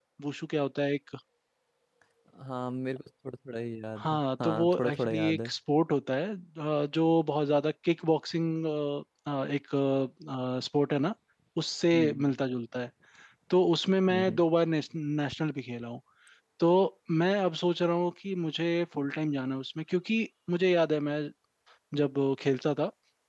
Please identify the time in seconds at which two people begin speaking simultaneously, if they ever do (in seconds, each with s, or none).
4.0 s